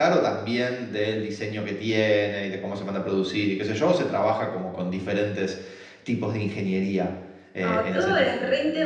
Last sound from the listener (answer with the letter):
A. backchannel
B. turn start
B